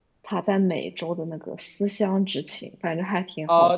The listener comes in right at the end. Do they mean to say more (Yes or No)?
Yes